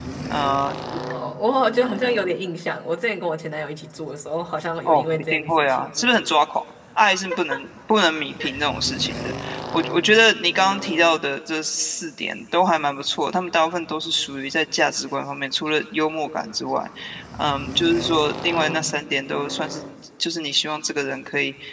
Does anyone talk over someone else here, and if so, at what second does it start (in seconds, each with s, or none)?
4.8 s